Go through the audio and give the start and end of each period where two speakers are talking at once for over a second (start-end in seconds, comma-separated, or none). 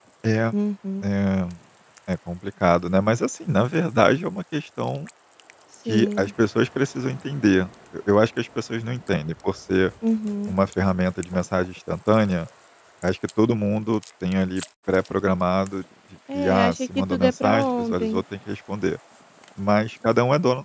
16.3-18.2